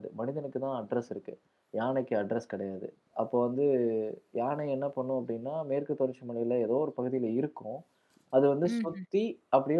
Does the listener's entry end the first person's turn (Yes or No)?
No